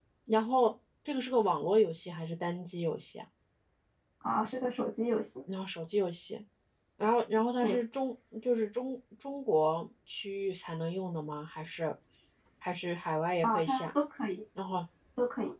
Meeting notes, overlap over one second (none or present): none